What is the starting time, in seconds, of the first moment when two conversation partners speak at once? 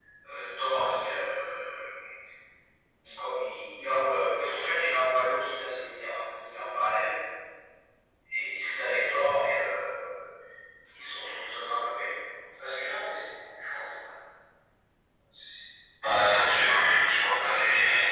none

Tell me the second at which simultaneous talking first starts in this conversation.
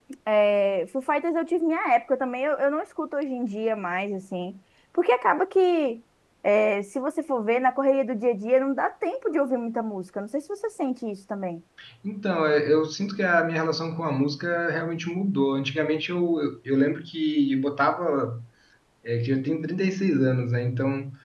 none

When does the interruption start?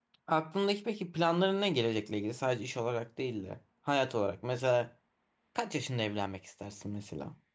none

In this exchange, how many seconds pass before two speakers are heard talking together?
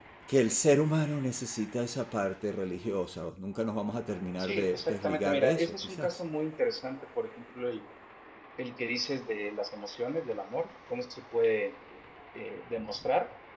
4 s

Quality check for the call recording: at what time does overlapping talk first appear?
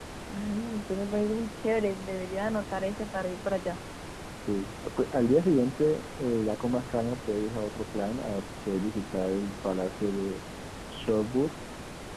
none

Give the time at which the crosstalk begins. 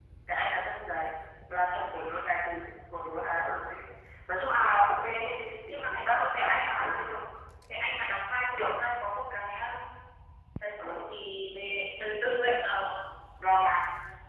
6 s

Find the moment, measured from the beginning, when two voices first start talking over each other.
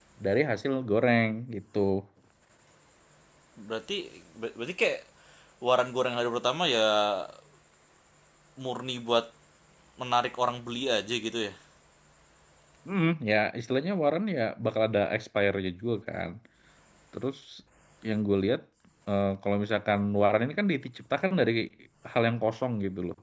none

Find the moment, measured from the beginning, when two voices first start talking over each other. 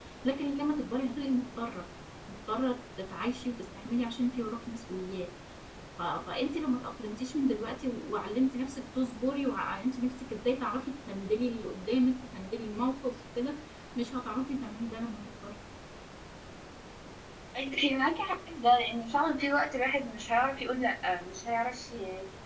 none

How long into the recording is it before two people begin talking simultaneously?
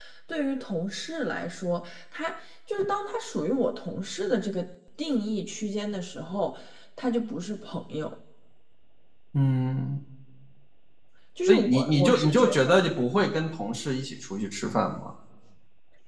11 s

